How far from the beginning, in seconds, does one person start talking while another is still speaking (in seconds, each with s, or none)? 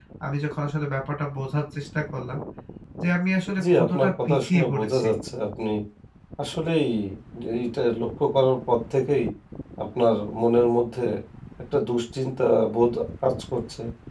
3.7 s